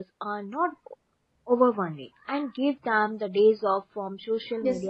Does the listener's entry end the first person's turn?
Yes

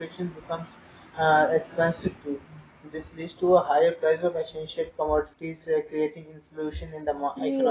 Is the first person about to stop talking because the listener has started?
No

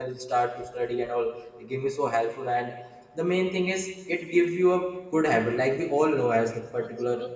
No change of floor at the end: Yes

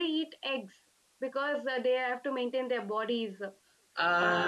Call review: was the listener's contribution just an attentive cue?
No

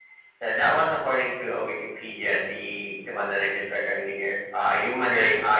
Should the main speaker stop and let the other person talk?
No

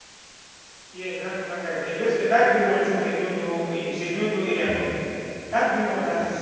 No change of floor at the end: No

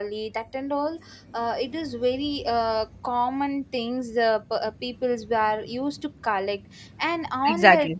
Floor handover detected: No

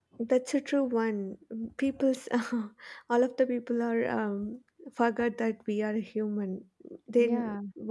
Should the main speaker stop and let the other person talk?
No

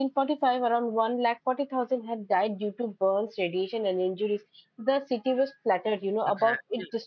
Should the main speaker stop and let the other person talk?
No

